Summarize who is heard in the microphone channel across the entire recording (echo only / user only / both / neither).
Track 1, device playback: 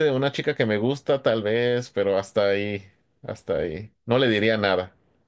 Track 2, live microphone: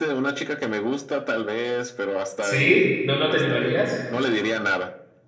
both